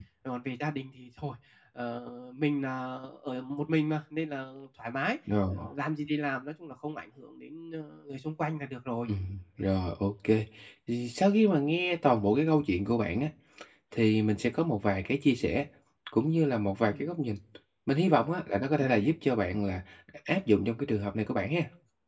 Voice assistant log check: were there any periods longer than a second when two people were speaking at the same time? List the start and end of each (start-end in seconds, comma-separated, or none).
none